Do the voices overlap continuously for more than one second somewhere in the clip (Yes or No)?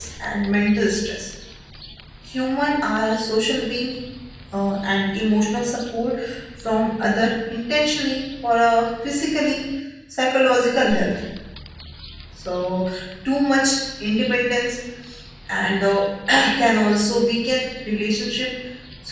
No